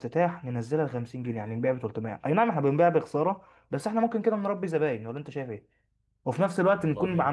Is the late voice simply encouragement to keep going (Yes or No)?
Yes